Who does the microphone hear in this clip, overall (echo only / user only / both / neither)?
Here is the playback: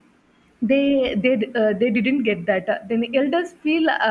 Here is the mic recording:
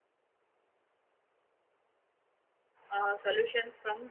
user only